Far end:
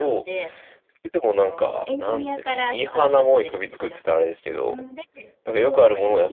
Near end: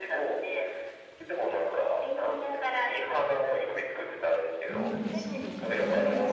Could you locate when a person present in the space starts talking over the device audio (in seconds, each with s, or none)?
4.7 s